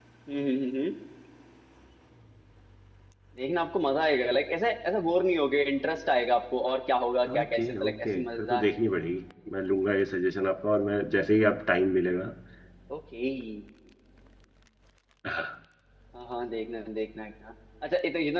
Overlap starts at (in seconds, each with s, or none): 7.2 s